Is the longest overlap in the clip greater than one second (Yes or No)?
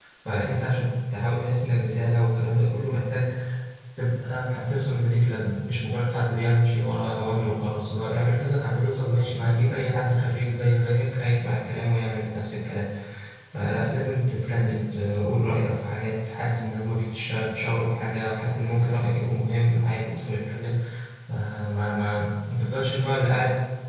No